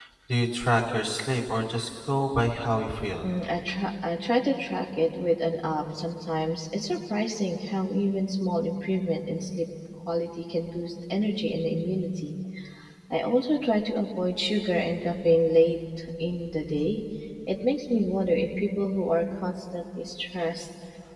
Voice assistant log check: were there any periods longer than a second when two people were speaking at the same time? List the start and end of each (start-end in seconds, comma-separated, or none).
none